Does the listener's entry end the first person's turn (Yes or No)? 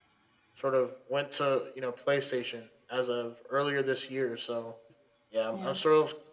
No